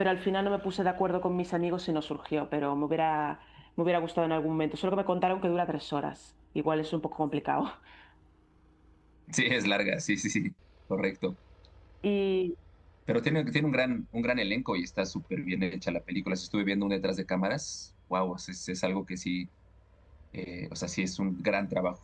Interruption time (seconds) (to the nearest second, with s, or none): none